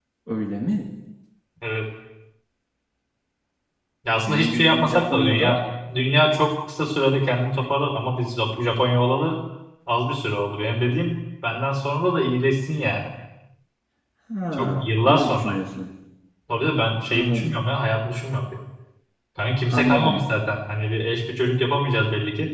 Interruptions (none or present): present